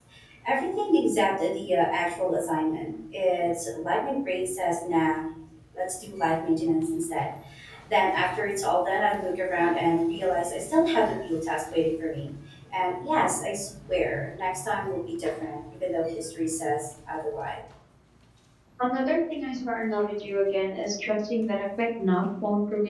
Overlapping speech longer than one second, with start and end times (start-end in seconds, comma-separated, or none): none